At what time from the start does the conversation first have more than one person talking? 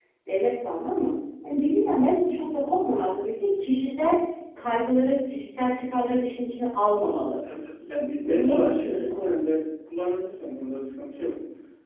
8.2 s

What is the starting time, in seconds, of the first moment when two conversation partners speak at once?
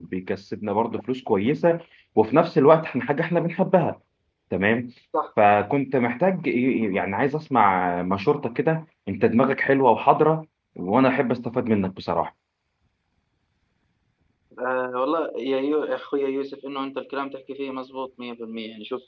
none

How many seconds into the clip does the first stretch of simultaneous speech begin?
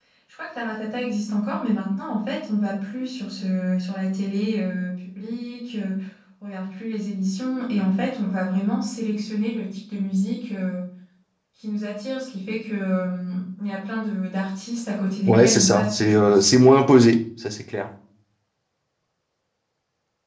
15.3 s

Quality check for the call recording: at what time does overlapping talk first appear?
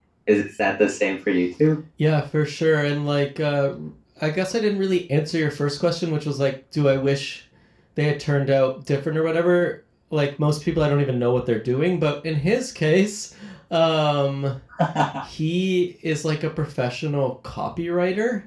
none

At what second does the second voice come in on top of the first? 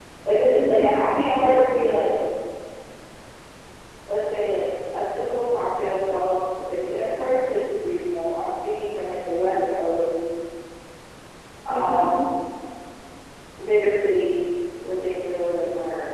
0.6 s

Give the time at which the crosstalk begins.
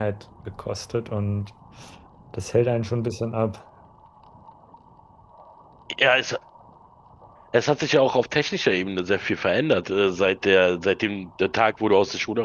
none

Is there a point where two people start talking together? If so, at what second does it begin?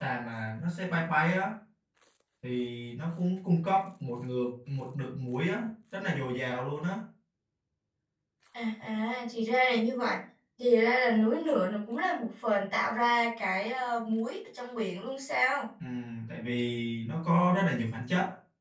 none

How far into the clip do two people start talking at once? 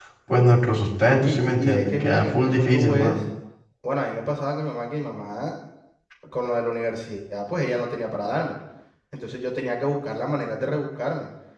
1.0 s

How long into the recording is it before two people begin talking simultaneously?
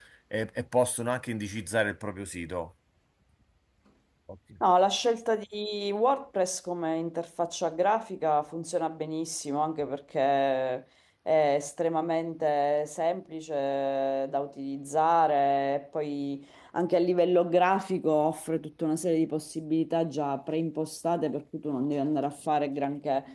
none

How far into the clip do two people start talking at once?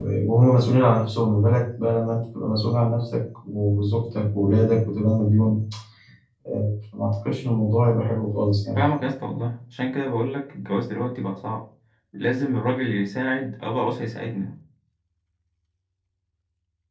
none

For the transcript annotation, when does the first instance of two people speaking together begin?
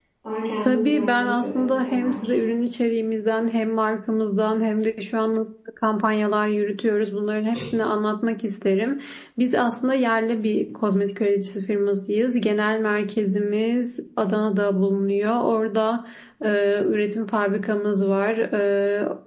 0.7 s

